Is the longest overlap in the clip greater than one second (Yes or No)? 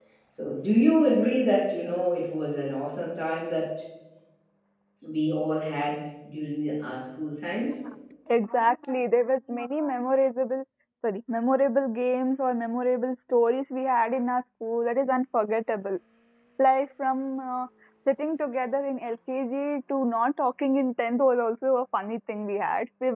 No